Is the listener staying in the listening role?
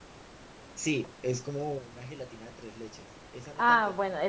No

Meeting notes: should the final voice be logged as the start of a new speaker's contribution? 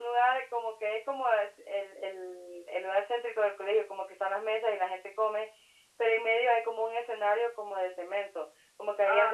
Yes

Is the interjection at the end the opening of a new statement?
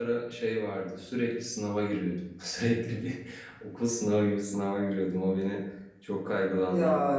No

